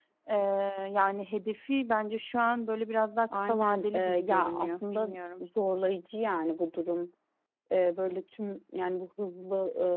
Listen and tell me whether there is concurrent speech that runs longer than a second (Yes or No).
Yes